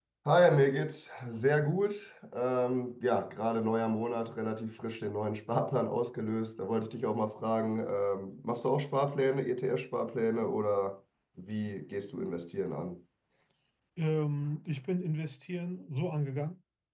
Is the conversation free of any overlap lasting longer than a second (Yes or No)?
Yes